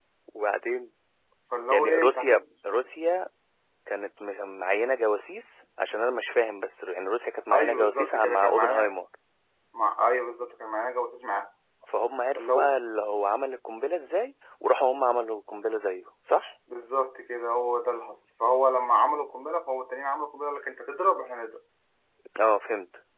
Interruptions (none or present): present